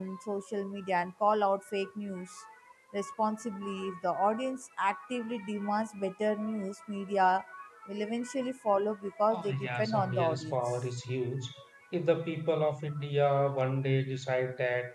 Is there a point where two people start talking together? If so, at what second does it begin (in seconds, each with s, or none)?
9.3 s